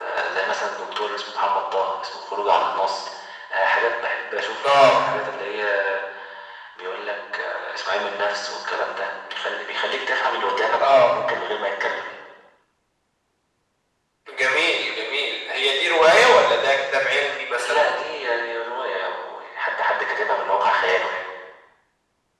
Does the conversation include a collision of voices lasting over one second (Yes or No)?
No